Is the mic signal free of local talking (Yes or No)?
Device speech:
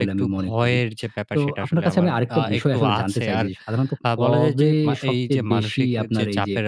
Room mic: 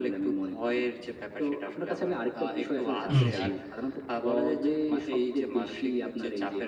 No